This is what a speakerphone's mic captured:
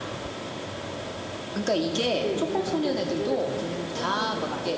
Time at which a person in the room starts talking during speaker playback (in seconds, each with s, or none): 2.1 s